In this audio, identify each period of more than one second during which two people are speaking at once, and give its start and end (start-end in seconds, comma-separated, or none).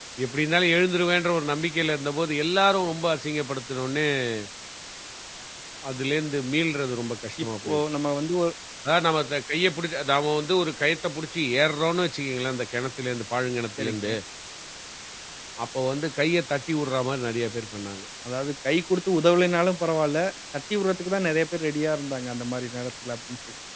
none